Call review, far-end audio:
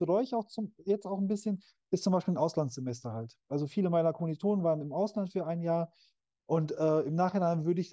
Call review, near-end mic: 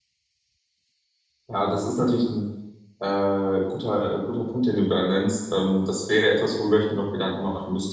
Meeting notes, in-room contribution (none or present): present